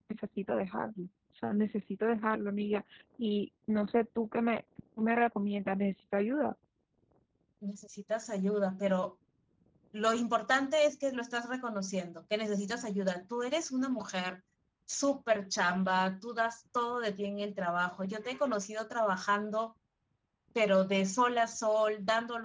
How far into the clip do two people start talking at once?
none

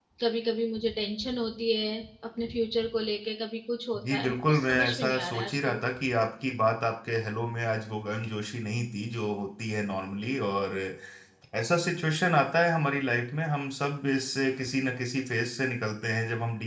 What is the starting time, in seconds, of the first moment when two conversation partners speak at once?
3.9 s

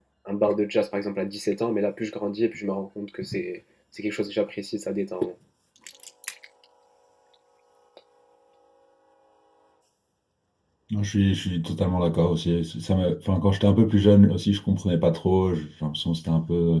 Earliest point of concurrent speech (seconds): none

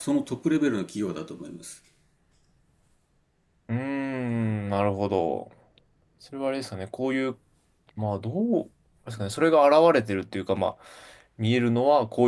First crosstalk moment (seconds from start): none

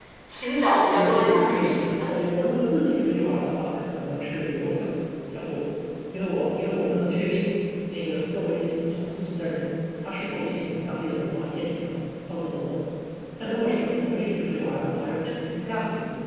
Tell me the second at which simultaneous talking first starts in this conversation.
0.8 s

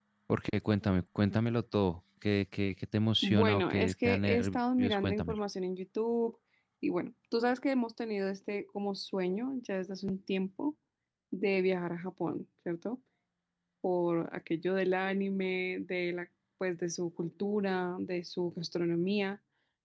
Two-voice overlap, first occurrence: 3.2 s

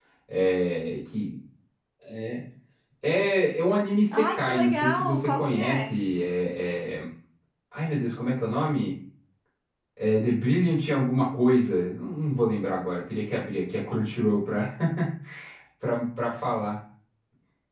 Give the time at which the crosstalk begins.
4.1 s

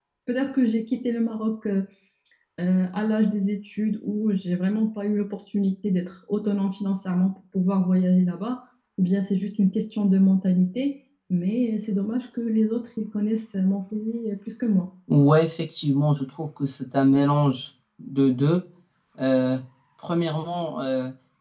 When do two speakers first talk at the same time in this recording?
none

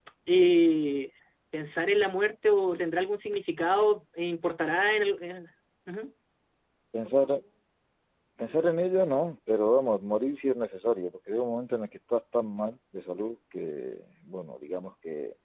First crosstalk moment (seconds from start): none

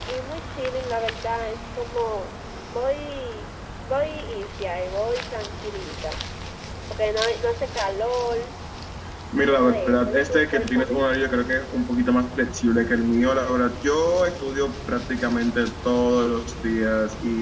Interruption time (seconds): 9.3 s

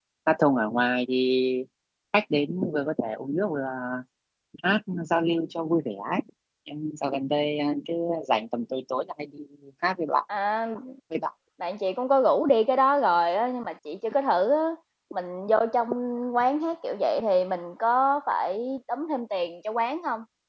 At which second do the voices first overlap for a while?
none

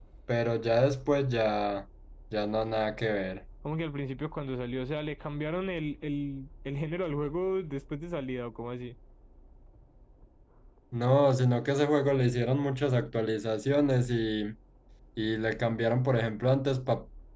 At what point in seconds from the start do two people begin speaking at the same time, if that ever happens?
none

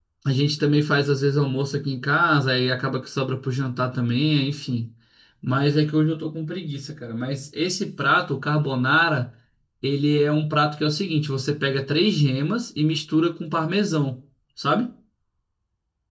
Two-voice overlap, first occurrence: none

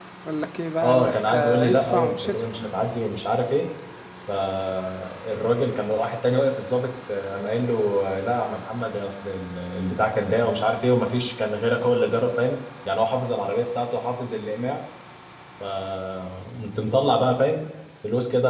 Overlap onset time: 0.8 s

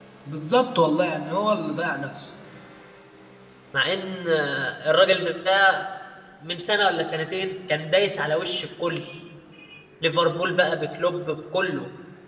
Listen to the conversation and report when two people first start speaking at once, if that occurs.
none

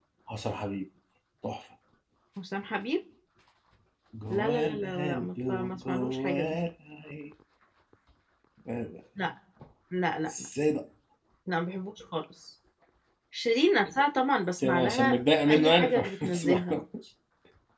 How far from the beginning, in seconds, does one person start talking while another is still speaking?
4.3 s

